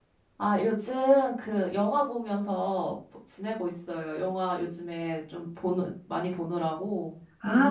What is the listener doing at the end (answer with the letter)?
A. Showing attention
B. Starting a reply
B